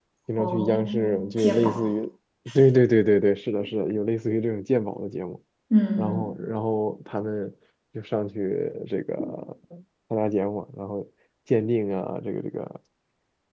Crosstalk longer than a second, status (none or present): present